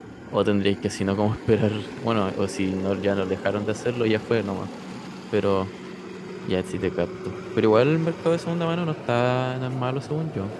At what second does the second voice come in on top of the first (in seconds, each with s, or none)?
none